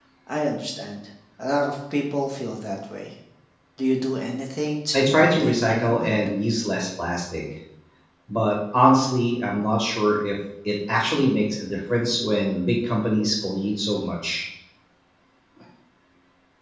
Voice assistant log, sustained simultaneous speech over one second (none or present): present